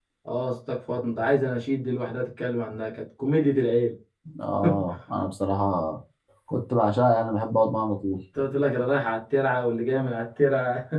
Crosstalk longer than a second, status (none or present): none